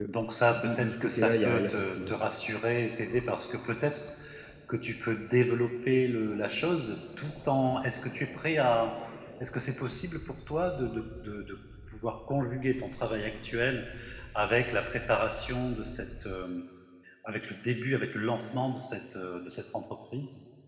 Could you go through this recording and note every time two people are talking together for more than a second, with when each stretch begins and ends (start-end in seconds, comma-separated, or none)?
0.5-2.2